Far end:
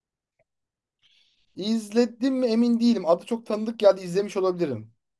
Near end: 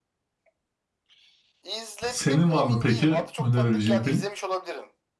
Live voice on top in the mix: Yes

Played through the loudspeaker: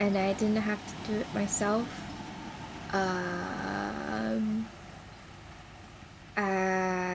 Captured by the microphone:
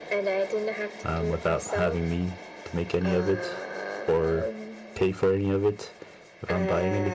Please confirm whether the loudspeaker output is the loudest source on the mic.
No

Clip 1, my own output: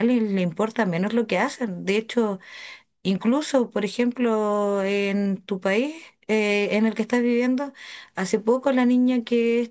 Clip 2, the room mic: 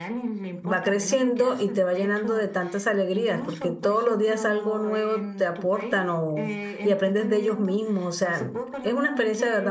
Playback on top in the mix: No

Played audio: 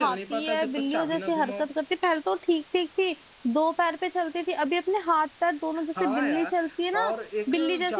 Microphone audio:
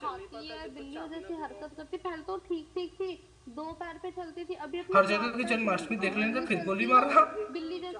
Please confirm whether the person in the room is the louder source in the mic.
Yes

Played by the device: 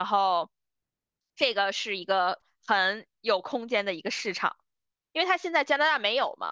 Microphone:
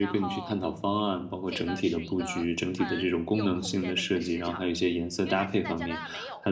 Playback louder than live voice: No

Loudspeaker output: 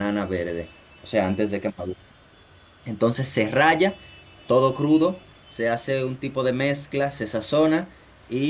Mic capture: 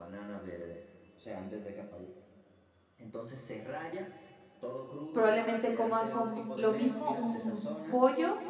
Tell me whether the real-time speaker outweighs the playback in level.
Yes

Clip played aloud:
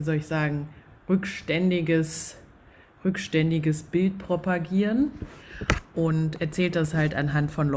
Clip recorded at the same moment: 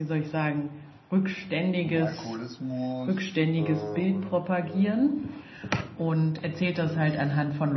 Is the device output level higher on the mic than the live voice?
Yes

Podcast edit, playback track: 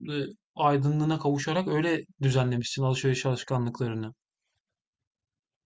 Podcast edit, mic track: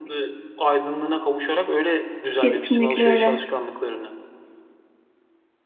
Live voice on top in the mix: Yes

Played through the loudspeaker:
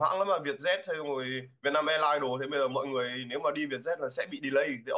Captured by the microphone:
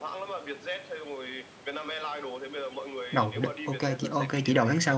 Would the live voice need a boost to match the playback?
No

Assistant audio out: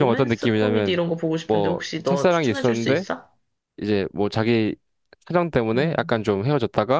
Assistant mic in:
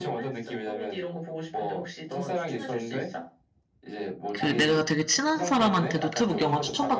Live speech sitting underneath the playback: No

